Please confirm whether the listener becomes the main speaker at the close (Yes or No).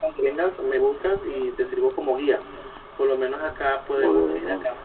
No